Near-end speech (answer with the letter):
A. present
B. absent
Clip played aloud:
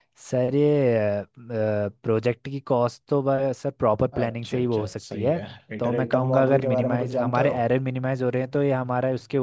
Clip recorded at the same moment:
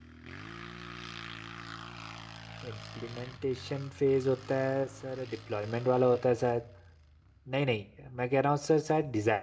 A